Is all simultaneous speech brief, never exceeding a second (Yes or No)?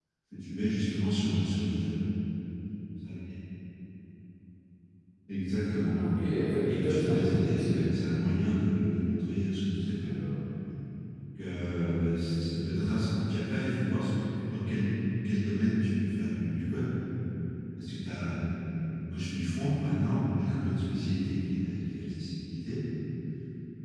No